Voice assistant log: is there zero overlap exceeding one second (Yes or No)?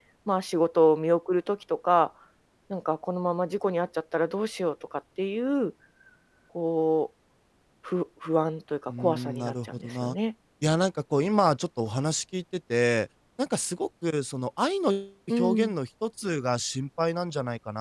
No